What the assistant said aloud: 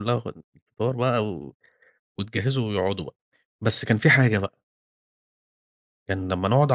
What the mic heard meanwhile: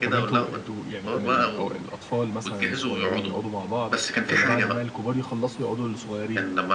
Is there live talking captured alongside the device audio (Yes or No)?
Yes